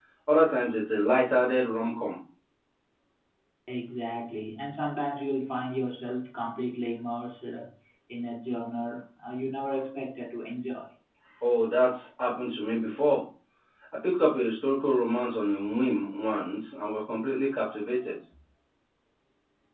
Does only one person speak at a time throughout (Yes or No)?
Yes